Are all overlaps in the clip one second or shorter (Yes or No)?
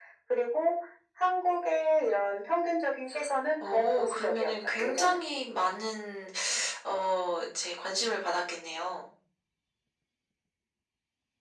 No